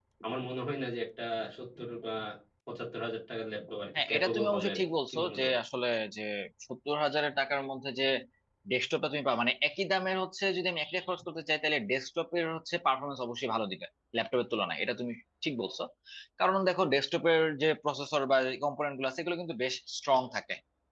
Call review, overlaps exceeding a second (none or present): present